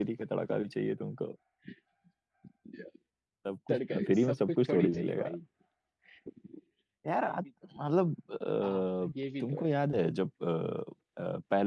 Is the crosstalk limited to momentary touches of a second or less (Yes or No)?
No